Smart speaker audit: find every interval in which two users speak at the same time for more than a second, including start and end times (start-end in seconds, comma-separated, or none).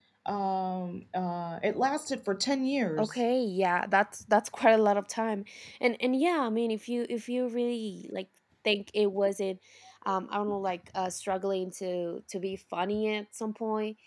none